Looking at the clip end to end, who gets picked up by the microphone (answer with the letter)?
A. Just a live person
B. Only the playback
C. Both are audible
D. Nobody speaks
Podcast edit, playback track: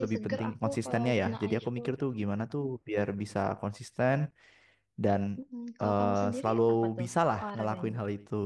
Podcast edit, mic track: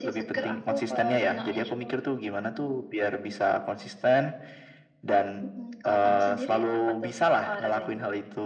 B